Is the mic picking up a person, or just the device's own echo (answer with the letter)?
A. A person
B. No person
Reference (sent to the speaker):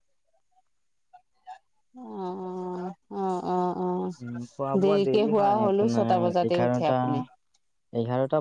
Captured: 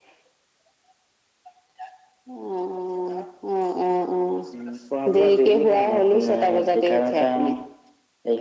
B